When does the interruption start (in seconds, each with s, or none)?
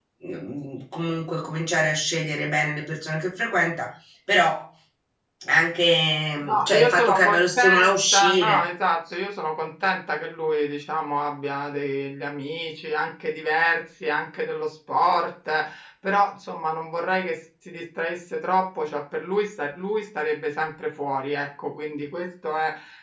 6.4 s